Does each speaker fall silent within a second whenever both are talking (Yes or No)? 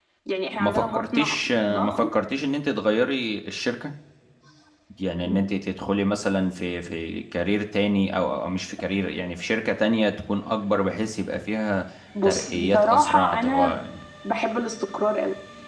No